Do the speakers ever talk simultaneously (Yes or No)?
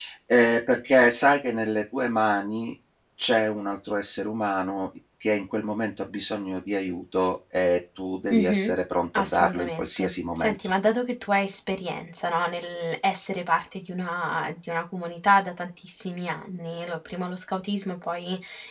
Yes